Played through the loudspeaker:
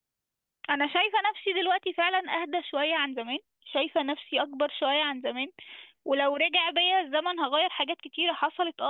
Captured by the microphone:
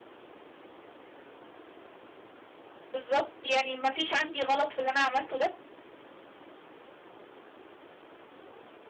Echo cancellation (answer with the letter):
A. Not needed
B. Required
A